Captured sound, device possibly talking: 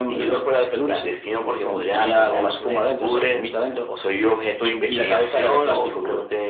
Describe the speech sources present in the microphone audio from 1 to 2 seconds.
echo only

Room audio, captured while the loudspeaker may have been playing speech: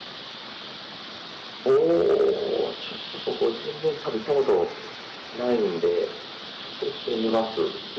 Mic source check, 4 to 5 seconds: echo only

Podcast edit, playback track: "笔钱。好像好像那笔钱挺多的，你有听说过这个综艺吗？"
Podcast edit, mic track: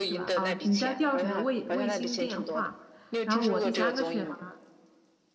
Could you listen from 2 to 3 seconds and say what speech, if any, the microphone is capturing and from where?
both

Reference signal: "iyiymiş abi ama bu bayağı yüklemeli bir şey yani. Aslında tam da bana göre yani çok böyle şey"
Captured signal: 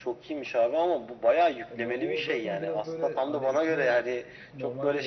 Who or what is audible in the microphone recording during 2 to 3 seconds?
both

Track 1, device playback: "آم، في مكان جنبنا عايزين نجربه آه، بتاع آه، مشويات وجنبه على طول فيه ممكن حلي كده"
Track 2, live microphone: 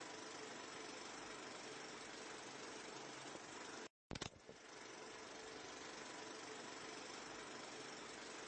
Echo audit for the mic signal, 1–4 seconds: neither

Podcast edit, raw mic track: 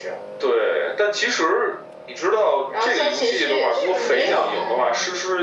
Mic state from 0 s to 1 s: echo only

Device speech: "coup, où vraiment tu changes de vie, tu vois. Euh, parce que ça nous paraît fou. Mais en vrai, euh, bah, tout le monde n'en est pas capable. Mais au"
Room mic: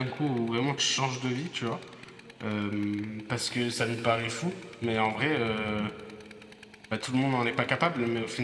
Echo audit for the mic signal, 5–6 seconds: echo only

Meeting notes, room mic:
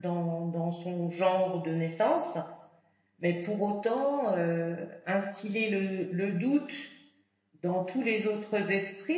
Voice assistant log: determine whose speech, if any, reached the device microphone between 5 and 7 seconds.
user only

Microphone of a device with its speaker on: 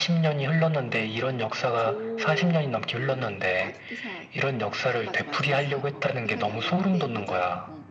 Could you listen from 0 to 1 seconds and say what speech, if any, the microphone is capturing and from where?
echo only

